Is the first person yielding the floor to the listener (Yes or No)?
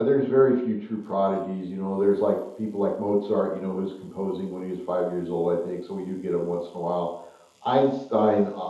No